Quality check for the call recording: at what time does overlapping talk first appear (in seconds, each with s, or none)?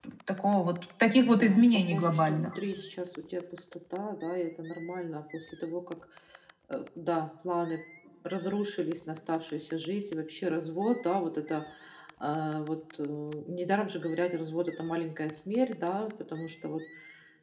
1.2 s